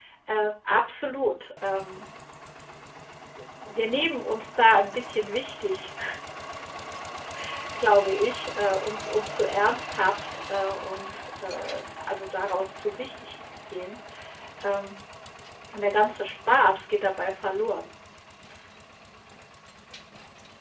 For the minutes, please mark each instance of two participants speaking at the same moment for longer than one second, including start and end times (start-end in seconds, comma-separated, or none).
none